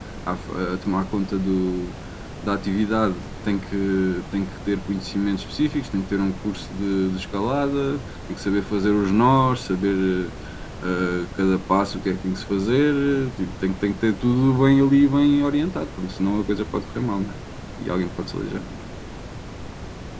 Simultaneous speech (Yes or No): No